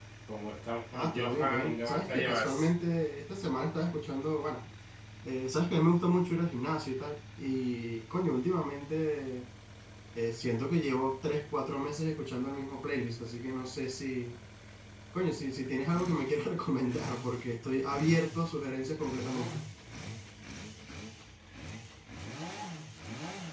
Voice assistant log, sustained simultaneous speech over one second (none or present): present